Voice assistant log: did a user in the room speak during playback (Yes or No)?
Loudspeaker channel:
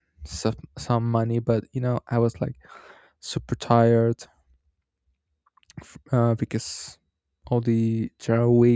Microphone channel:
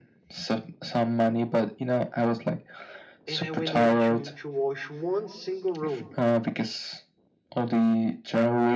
Yes